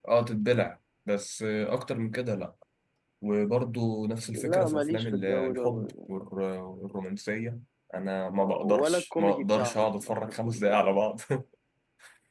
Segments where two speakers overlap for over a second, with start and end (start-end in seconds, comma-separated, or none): 4.3-6.2, 8.4-10.8